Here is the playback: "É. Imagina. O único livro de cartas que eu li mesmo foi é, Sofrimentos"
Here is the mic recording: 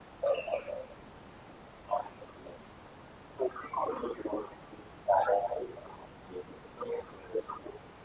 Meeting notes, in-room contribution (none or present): none